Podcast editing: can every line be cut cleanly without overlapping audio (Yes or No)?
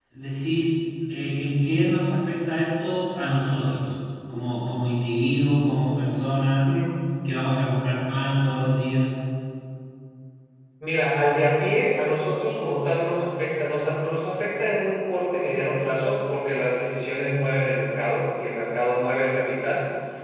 Yes